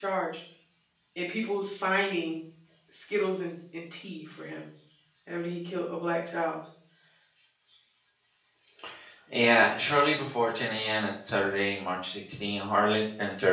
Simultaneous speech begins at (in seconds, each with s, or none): none